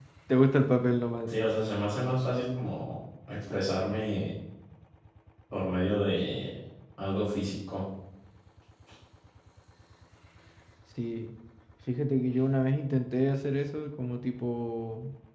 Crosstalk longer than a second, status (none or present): none